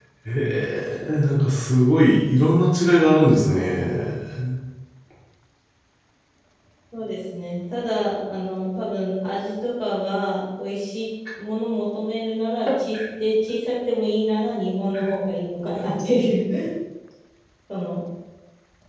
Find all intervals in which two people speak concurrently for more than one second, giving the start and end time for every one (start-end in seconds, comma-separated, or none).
none